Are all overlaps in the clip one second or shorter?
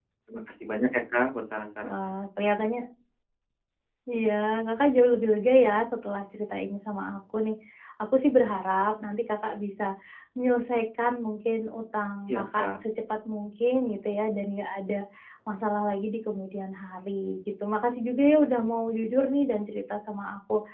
Yes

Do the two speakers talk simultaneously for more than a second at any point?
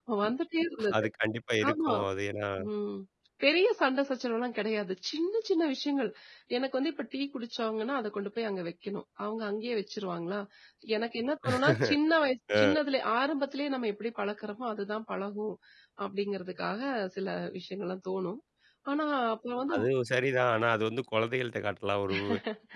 No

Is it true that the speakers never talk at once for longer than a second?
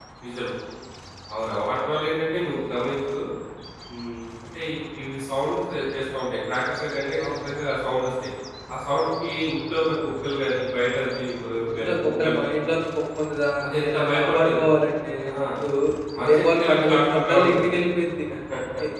No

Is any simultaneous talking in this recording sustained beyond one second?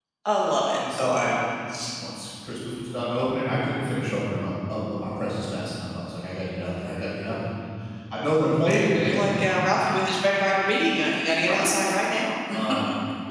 No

